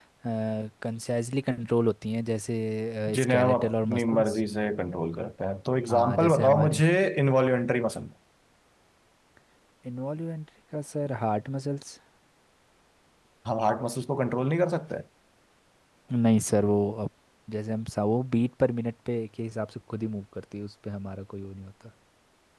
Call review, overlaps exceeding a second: present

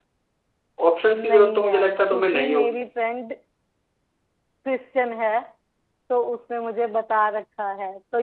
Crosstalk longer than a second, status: present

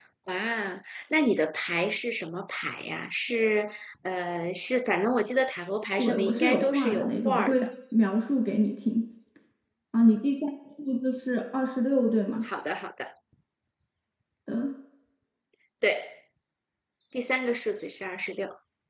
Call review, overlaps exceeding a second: present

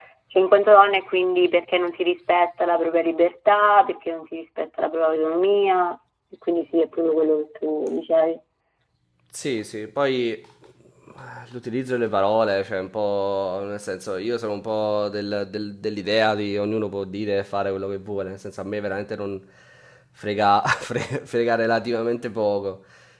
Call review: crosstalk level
none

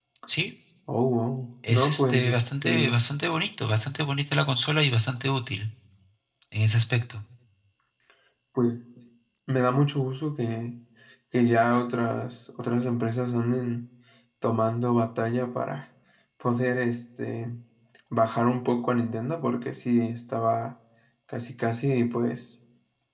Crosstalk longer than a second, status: present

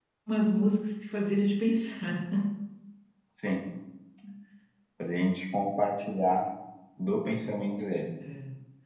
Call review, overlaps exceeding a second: none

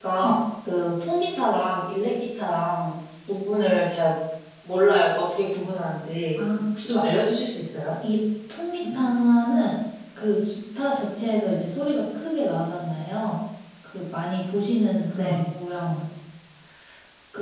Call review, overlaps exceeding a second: none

